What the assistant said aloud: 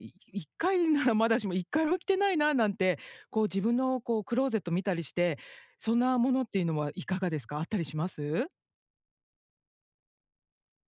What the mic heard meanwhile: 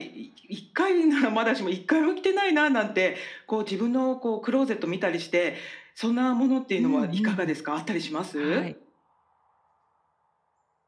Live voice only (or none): うんうんうん。はい。